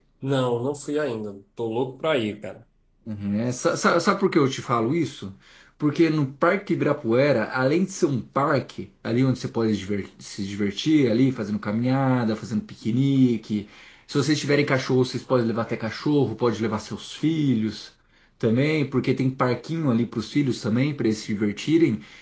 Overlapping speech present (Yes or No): No